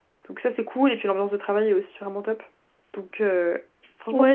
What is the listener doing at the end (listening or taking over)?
taking over